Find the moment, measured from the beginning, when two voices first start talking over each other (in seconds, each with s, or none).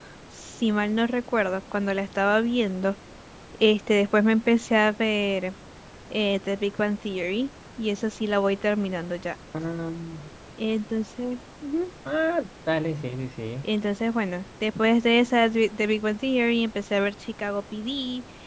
none